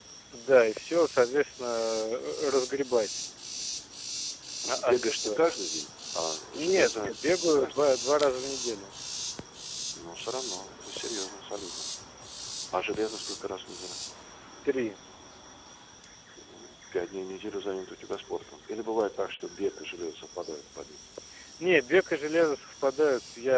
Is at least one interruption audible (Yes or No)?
Yes